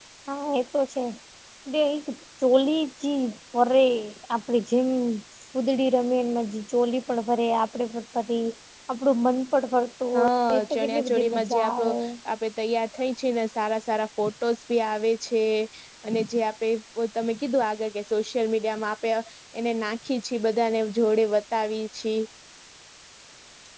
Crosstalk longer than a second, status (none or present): present